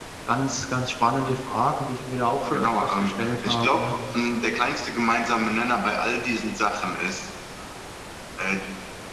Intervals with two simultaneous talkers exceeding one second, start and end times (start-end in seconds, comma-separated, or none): 2.5-3.9